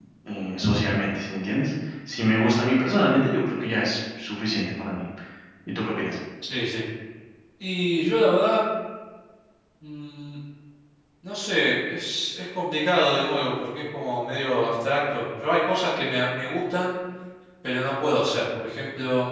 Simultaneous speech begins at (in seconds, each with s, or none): none